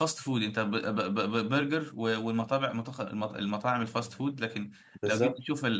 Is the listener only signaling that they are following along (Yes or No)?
Yes